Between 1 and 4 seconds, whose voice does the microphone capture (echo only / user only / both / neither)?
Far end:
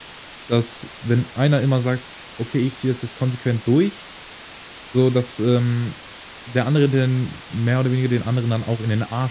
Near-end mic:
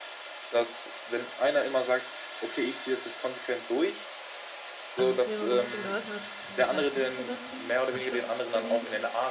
echo only